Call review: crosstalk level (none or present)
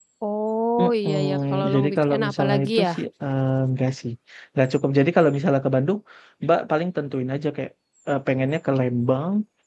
present